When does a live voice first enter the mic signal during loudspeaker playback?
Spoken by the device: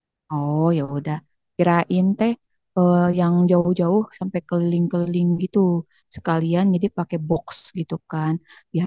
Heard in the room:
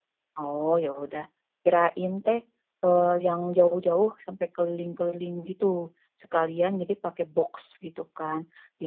none

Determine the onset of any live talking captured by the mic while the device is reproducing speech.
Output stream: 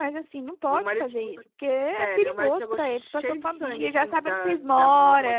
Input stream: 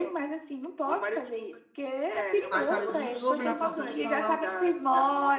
2.5 s

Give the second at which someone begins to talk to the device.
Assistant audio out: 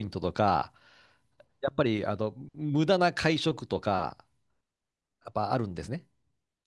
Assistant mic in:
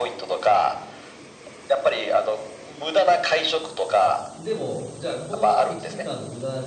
3.9 s

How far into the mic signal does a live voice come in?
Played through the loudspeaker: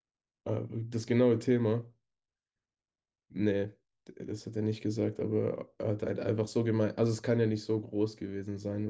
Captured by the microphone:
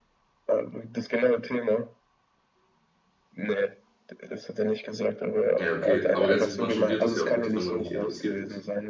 5.6 s

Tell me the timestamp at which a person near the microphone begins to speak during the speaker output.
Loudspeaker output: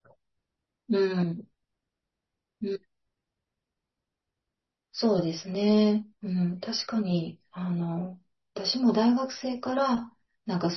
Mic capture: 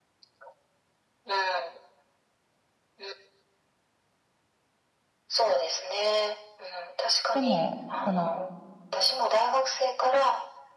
7.3 s

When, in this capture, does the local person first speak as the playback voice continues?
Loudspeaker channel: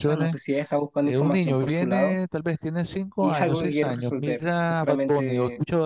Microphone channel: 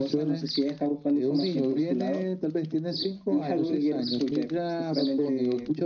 none

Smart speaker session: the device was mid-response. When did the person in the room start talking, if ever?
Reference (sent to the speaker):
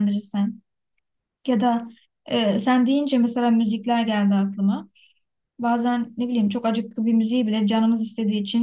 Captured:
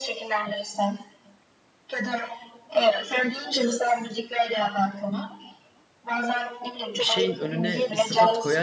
7.0 s

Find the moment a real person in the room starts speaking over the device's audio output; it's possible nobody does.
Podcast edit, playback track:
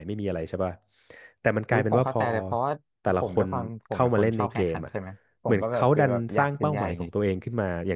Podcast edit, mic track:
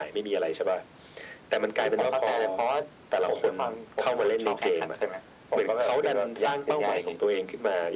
none

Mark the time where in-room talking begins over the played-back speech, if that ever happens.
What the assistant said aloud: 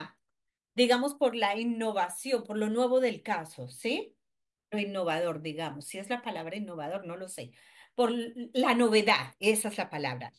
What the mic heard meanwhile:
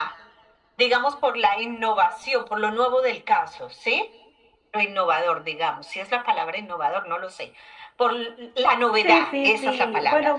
9.0 s

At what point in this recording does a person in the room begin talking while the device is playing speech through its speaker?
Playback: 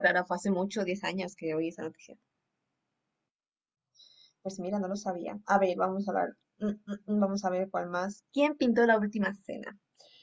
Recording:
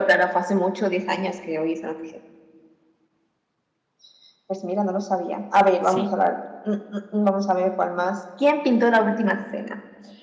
5.8 s

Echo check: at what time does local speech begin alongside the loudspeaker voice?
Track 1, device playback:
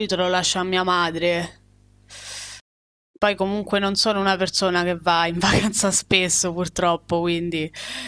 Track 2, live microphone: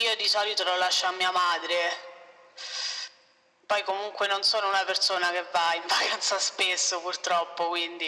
none

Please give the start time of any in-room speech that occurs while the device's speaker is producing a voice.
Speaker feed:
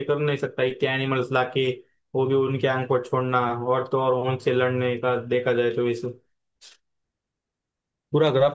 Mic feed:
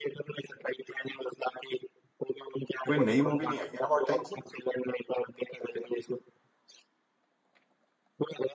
2.9 s

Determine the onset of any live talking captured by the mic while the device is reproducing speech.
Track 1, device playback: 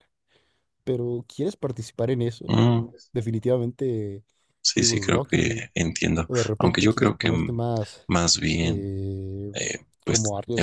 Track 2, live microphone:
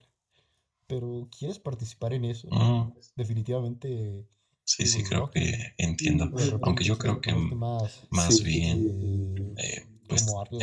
6.0 s

